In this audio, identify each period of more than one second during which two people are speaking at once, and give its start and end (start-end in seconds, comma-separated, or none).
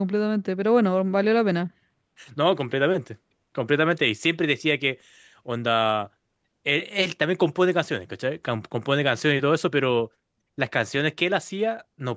none